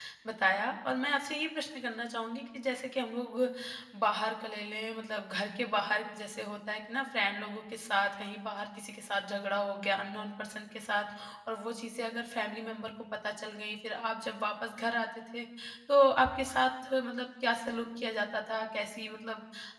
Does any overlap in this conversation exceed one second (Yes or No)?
No